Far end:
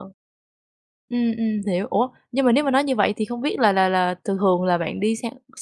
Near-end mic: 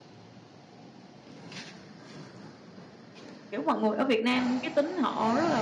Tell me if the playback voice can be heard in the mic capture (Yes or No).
No